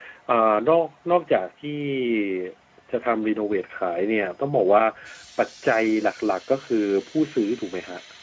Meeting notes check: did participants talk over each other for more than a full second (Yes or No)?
No